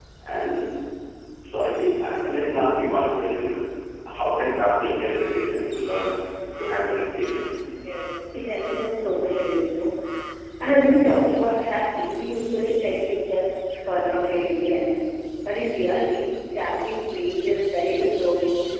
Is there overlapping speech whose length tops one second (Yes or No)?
No